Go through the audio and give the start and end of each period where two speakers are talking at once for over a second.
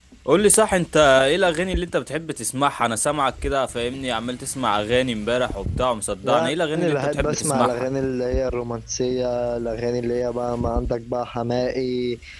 6.2-7.9

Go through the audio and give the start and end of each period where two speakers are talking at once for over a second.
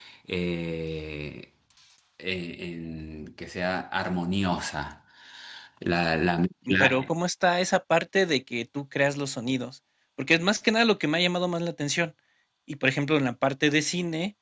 none

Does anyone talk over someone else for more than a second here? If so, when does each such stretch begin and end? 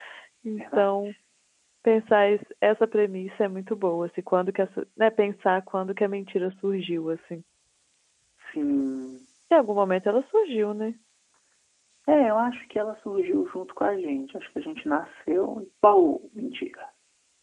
none

